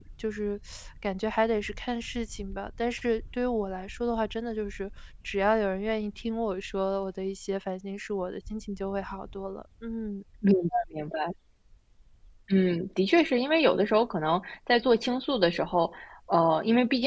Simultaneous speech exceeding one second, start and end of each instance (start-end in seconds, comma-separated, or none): none